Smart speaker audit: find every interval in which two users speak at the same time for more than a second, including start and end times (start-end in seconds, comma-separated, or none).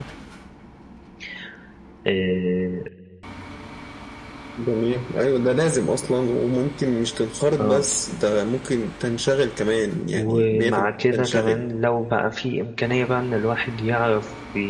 10.1-11.6